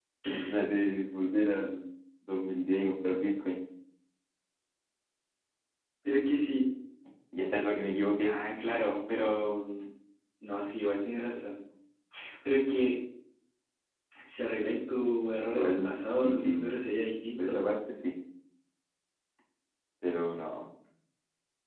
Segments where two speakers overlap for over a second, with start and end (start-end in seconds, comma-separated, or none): 15.6-16.8